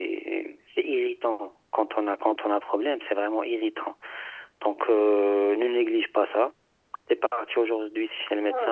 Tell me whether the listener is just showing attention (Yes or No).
No